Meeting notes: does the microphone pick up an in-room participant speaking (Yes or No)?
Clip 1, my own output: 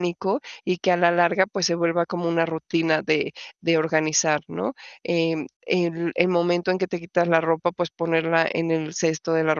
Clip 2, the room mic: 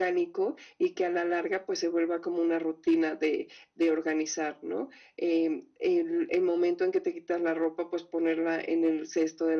No